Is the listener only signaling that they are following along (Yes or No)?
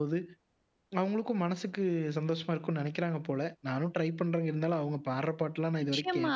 No